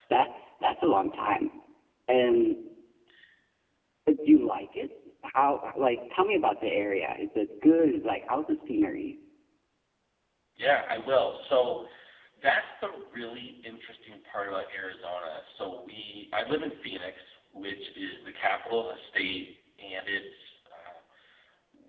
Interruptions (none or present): none